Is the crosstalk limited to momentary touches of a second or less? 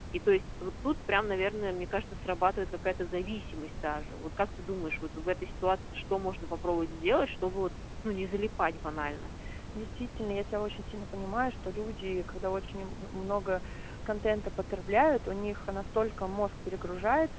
Yes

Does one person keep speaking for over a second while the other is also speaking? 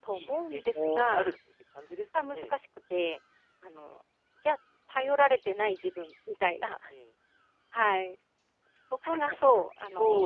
Yes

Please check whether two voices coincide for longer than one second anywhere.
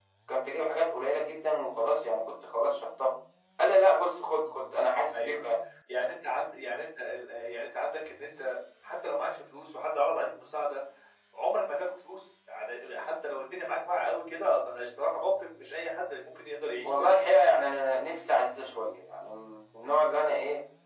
No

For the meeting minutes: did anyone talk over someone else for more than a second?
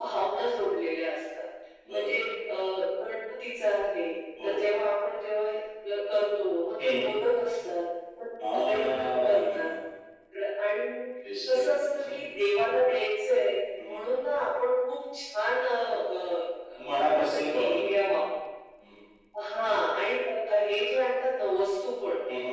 Yes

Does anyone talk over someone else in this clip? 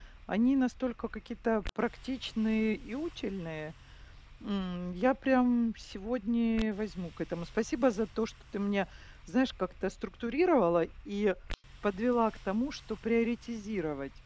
No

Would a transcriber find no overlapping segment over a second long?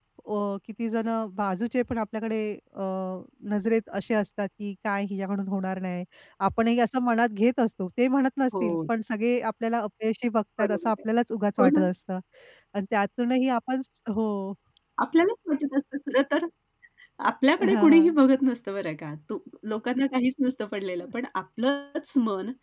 Yes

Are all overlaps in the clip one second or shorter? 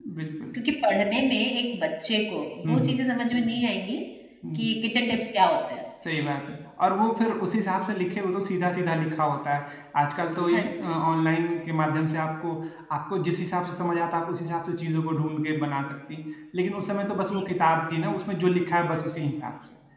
Yes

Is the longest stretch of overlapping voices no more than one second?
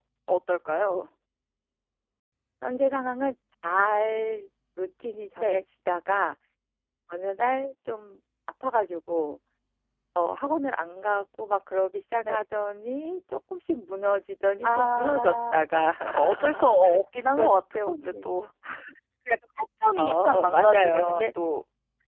No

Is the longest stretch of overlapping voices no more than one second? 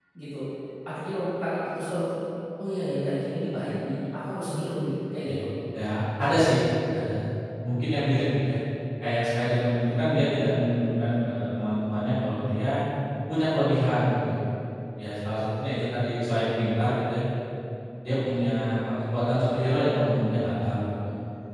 Yes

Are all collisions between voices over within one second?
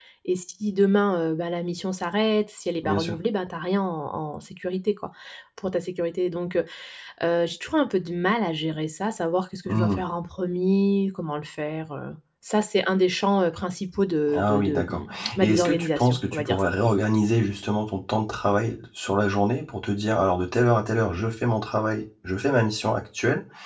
No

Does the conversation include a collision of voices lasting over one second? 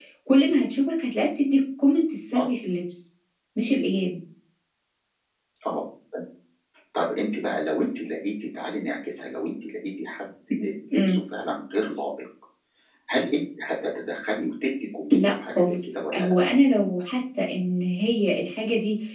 Yes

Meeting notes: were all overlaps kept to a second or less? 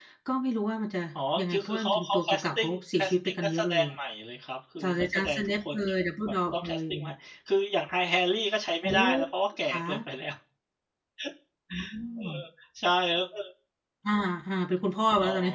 No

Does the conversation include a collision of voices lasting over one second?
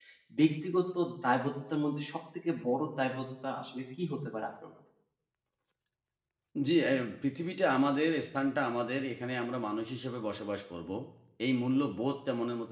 No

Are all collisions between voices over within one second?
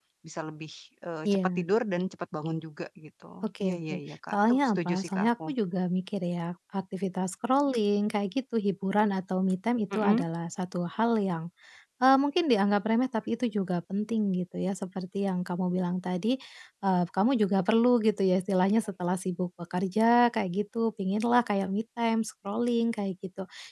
No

